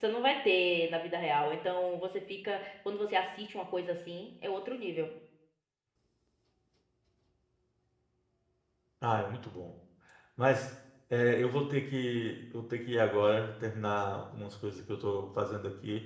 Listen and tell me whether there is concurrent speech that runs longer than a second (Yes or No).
No